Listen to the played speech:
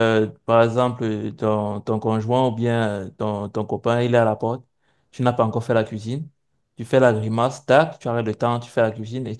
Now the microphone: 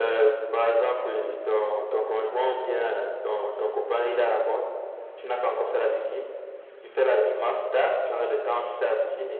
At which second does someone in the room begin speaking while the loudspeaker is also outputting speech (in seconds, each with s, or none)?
none